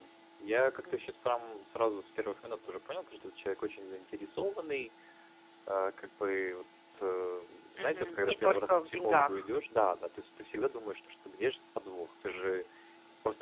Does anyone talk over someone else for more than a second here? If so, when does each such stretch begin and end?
7.8-9.5

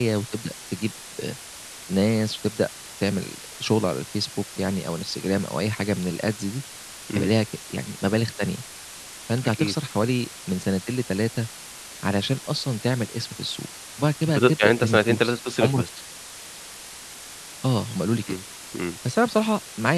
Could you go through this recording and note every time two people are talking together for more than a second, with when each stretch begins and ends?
14.3-15.8

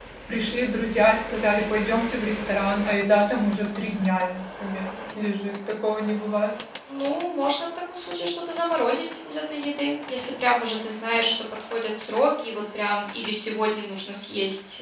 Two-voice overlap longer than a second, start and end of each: none

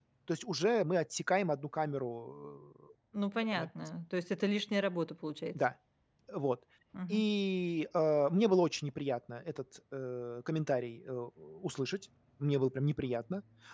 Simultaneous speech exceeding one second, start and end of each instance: none

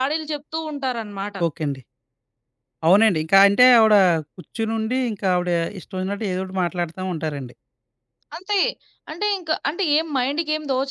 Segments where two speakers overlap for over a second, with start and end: none

